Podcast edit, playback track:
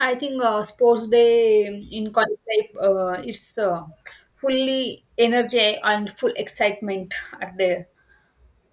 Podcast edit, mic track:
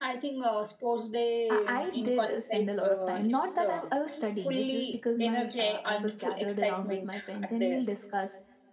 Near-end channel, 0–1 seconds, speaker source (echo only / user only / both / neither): echo only